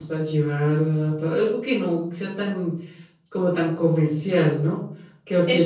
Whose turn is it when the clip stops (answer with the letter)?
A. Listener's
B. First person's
A